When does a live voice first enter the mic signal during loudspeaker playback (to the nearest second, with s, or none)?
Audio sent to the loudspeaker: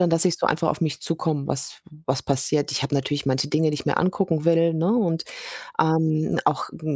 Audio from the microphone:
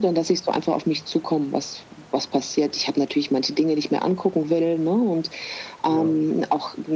6 s